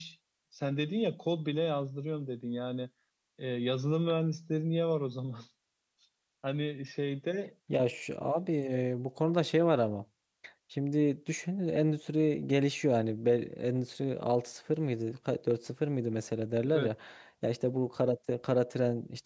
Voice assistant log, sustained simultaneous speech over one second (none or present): none